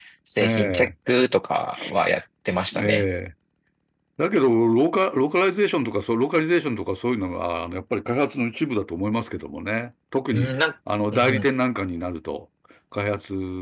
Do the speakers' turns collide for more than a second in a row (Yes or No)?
No